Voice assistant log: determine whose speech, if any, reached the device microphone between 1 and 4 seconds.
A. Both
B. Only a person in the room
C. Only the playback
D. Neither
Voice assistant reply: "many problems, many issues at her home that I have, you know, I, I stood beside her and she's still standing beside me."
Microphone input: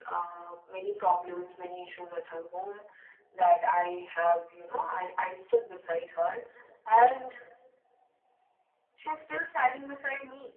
C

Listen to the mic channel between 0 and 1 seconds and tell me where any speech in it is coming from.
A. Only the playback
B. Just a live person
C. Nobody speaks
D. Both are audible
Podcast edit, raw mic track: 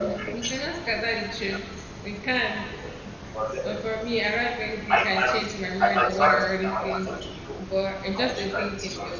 D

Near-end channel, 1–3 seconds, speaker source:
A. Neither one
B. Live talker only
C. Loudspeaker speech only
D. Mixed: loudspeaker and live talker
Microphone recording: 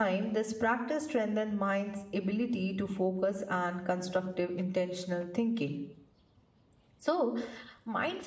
B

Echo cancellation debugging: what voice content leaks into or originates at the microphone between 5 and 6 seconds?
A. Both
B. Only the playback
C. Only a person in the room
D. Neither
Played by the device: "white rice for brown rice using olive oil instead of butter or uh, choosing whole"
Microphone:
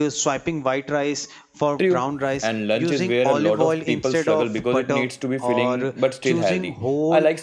A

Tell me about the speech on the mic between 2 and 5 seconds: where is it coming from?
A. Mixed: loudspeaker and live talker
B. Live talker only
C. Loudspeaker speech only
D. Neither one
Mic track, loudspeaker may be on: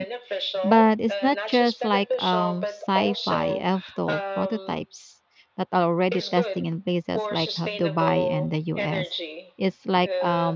A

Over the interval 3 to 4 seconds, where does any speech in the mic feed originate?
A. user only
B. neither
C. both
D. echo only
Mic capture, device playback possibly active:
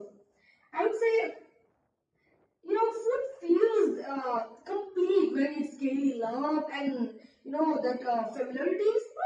D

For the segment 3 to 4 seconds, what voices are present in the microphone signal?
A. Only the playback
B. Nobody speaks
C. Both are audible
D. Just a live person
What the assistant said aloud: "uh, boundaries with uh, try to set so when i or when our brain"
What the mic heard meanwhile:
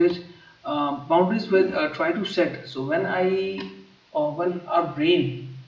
A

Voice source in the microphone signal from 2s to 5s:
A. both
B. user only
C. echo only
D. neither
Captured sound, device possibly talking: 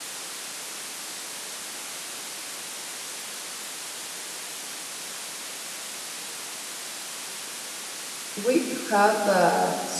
D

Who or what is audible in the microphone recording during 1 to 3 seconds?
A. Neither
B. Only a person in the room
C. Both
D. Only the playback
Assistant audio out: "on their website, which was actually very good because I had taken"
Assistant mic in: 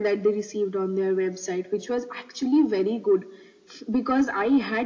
D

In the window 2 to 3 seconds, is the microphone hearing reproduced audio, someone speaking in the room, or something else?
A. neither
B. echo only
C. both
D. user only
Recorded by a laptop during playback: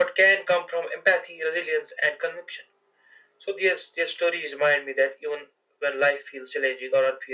B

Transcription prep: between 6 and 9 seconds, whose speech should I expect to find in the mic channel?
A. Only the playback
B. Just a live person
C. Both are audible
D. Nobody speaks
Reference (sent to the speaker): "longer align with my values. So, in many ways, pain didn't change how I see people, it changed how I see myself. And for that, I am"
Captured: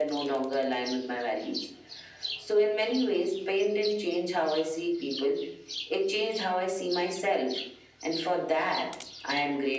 A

